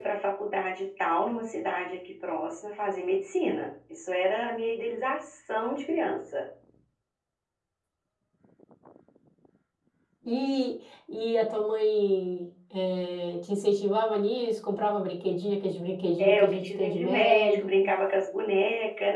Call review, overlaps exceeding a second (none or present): present